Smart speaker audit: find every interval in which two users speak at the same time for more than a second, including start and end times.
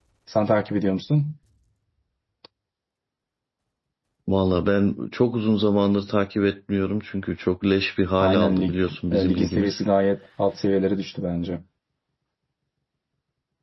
8.2-9.8

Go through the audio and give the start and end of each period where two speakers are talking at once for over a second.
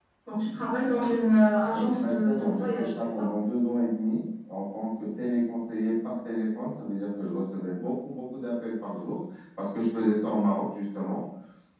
1.7-3.3

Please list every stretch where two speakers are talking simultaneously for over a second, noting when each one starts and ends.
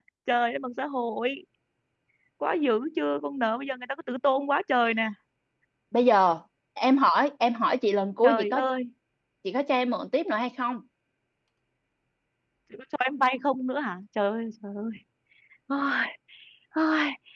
none

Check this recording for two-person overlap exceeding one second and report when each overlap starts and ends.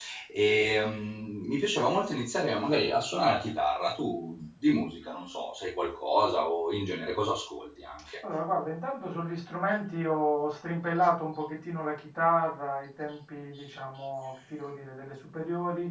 none

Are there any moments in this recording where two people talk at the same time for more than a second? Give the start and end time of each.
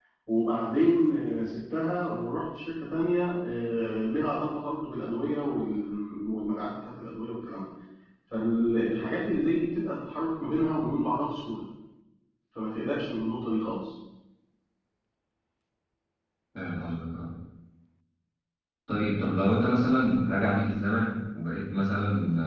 none

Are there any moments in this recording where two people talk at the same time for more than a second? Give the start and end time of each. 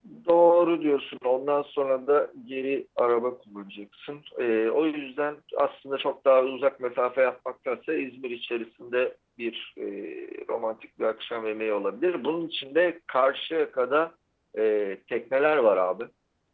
none

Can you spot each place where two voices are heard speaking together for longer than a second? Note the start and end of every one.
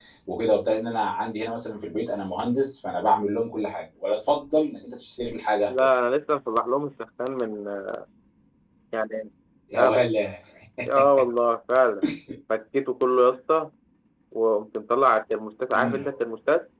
none

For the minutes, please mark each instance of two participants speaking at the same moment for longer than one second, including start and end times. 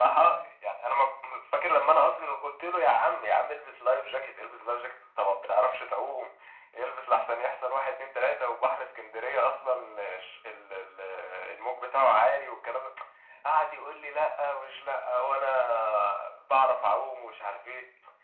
none

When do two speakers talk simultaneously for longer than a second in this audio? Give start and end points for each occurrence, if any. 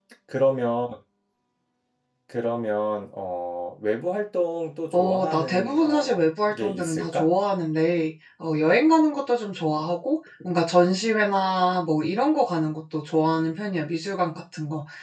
4.9-7.3

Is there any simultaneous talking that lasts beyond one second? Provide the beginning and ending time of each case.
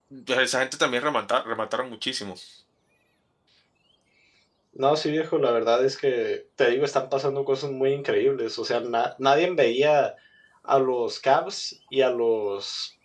none

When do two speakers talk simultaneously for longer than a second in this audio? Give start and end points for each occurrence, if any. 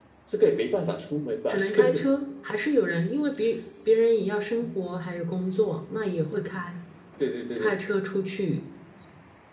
none

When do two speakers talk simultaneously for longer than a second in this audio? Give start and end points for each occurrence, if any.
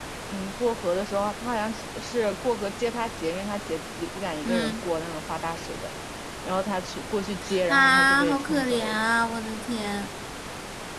7.7-9.0

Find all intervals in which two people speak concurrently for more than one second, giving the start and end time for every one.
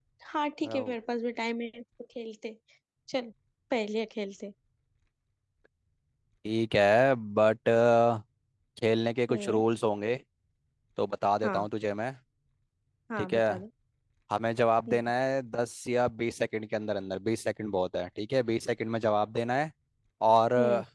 none

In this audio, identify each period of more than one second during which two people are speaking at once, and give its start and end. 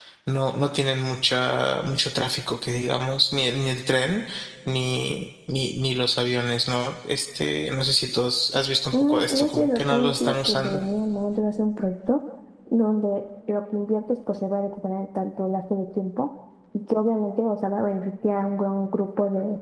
8.9-10.8

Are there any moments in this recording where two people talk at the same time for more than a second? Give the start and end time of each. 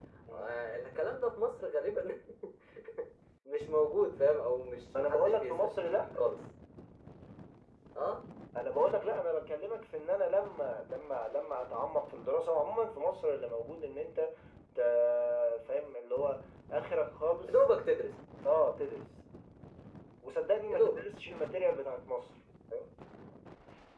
5.0-6.2

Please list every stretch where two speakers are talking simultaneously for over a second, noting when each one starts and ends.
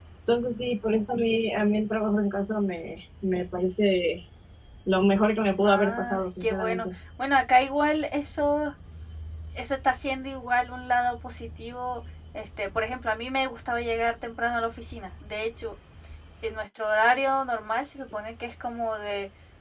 5.6-6.9

